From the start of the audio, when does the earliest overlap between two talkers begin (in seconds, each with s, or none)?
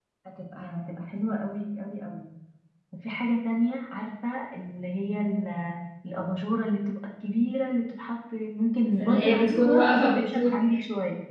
9.0 s